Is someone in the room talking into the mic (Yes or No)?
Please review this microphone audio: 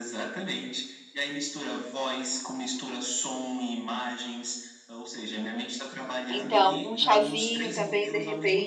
Yes